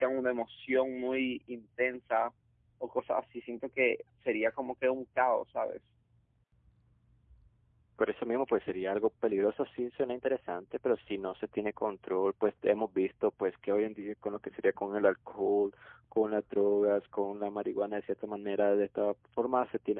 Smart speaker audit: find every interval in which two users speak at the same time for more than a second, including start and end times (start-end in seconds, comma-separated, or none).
none